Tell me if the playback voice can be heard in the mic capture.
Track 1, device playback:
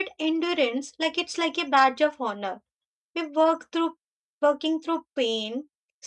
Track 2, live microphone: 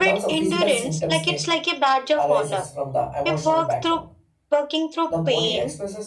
Yes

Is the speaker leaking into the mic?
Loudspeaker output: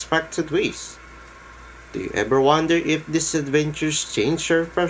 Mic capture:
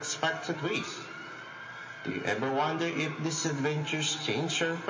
Yes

